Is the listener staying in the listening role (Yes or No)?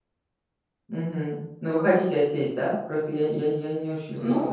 No